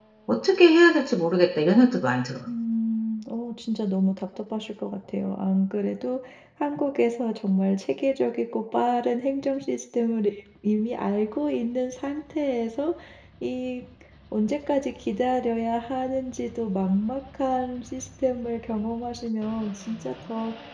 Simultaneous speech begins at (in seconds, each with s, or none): none